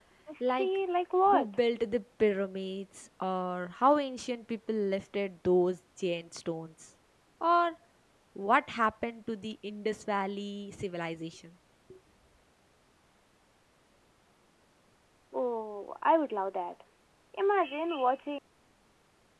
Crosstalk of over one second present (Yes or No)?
No